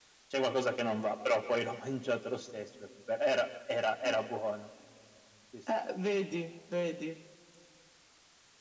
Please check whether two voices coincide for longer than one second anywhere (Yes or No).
No